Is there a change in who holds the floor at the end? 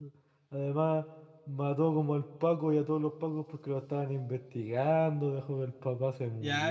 Yes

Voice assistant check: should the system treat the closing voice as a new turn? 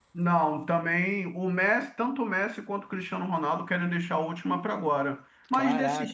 No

